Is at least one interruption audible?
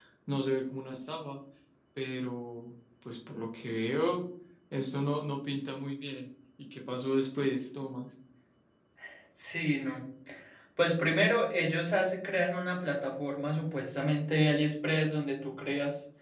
No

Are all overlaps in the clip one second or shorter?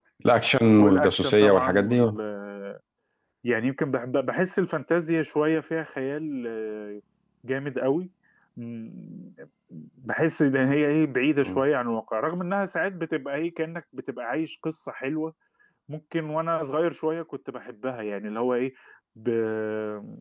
No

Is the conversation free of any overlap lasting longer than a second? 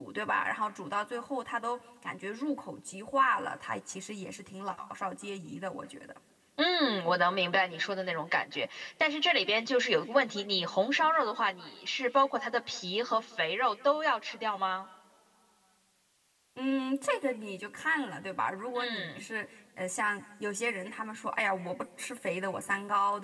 Yes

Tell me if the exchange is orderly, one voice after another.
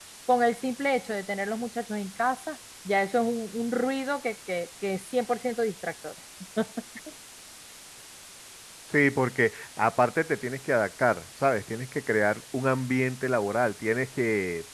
Yes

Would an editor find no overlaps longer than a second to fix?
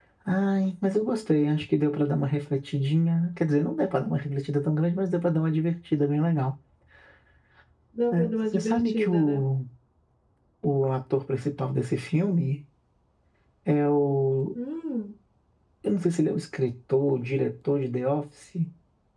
No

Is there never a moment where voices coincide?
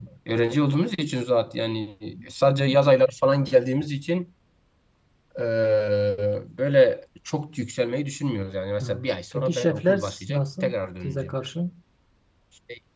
No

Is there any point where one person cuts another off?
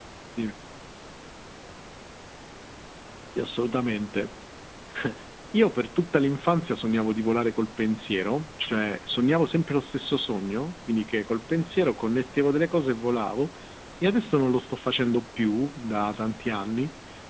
No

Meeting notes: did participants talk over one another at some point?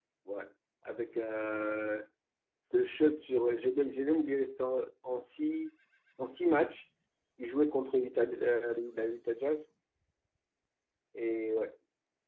No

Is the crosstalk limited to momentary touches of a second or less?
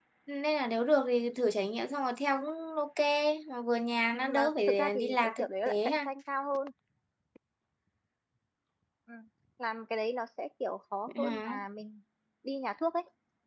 No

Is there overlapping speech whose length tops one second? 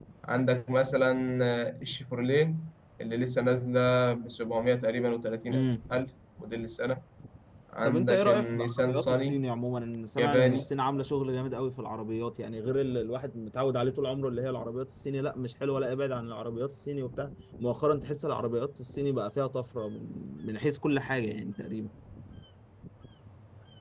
Yes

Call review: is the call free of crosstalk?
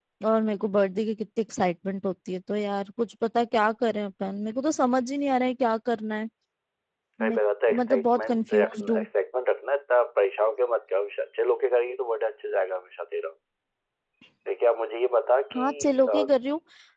No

